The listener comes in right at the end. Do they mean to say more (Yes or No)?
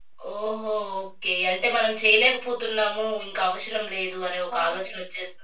Yes